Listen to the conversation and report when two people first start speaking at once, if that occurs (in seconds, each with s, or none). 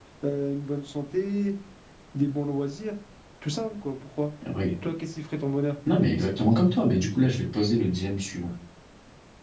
none